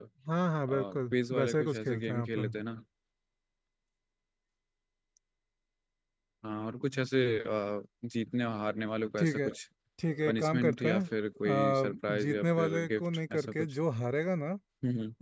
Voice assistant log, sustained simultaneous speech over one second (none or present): present